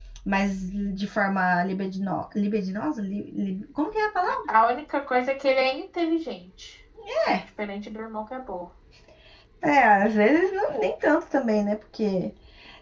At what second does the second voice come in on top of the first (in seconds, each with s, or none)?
none